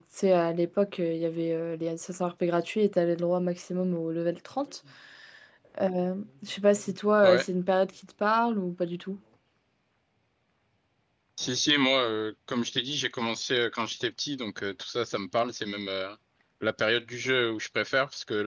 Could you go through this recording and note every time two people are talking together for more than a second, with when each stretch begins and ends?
none

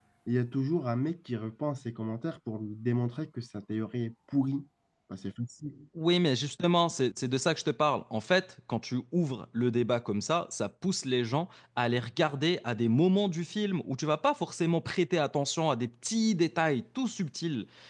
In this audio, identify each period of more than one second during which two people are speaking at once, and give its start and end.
none

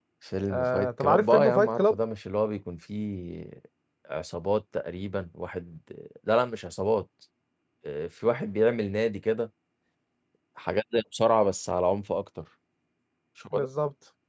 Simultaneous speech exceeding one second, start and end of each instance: 0.5-2.0

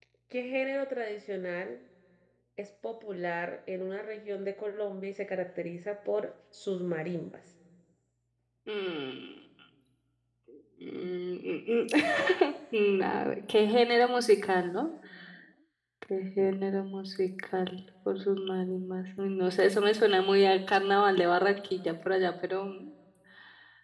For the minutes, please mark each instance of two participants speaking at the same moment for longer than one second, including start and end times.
none

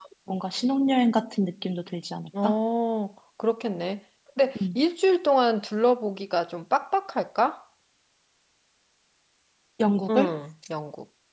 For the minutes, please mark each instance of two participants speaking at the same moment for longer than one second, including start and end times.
none

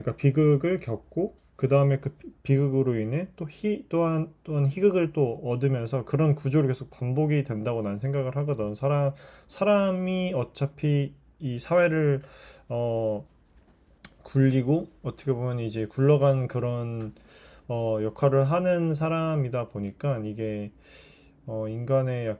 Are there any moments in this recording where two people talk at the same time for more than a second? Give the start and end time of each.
none

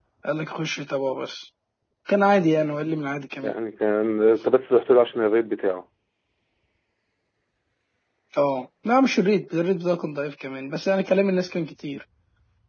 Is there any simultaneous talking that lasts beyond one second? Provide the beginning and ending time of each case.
none

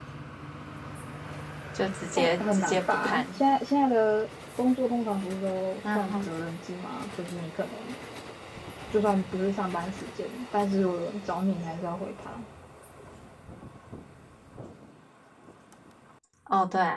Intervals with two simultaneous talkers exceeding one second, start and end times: 2.2-3.4

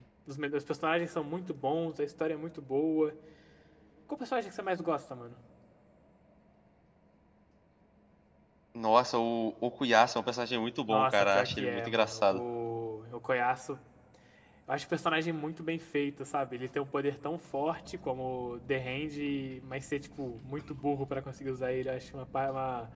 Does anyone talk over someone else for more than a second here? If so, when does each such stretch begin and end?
10.9-12.4

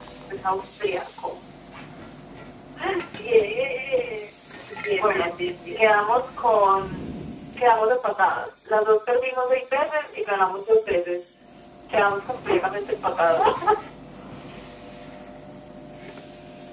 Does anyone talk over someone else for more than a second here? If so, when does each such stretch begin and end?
none

